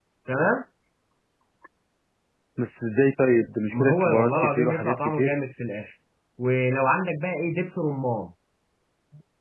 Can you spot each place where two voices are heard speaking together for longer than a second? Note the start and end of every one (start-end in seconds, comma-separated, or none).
3.7-5.3